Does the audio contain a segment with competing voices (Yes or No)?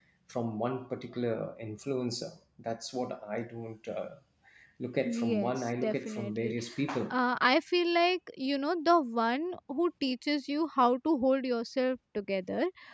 Yes